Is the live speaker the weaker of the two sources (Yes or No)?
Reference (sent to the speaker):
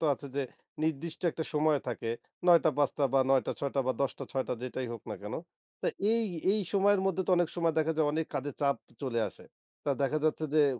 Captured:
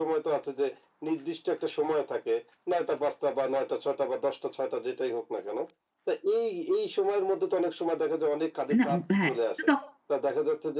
No